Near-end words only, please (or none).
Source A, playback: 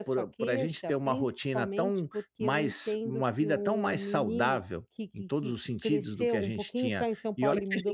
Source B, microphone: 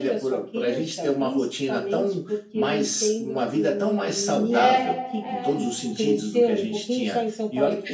É, é.